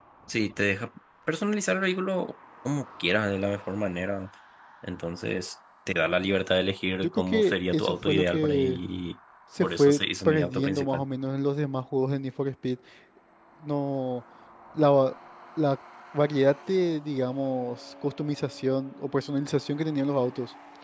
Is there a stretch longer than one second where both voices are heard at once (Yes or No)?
Yes